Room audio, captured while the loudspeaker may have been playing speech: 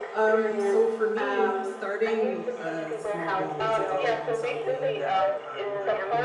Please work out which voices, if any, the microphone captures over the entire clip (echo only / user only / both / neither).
both